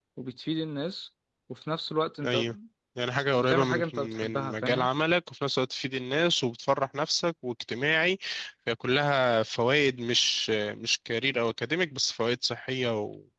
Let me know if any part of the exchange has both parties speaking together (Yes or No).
Yes